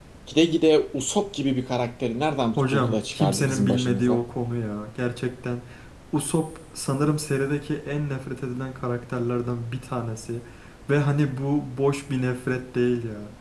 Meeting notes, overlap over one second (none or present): present